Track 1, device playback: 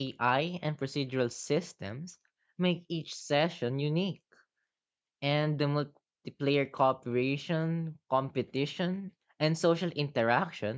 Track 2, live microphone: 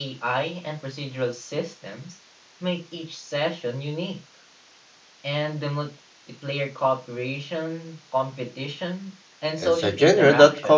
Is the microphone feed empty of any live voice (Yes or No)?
No